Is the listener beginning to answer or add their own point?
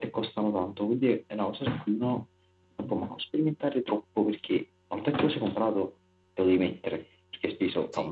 No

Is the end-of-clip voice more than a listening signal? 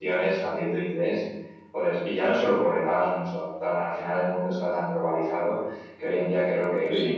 No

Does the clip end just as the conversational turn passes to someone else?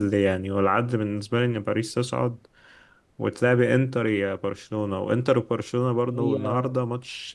No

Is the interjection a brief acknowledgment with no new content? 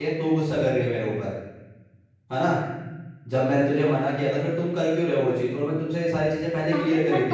No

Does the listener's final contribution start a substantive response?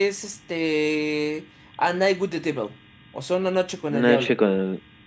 Yes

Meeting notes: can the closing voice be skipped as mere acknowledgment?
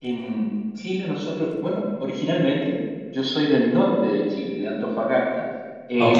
Yes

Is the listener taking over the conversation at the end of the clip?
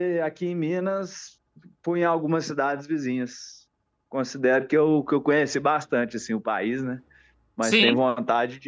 No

